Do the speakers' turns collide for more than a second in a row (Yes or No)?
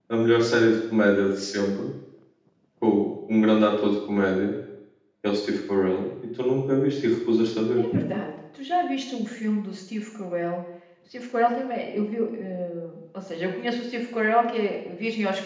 No